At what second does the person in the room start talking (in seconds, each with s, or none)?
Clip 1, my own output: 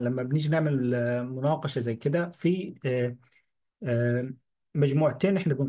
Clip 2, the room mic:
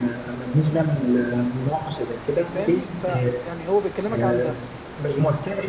2.5 s